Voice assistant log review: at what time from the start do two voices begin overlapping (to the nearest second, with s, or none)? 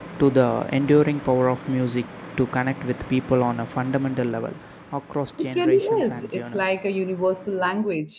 5 s